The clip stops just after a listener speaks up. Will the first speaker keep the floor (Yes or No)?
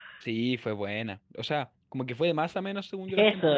No